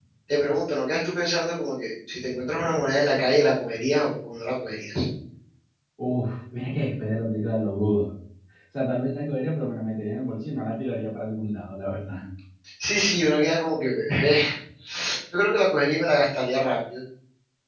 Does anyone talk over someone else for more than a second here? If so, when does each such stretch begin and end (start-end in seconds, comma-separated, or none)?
none